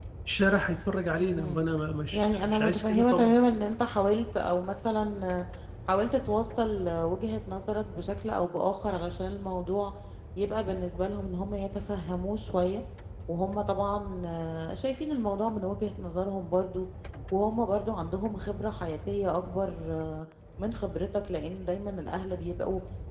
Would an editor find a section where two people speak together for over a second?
Yes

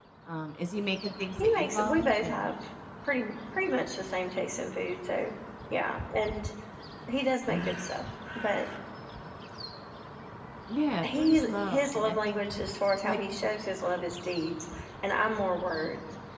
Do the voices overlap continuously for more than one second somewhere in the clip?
Yes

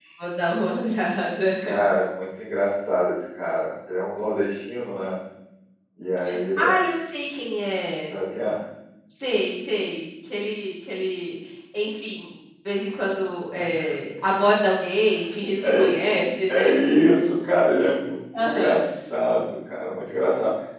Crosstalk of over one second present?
No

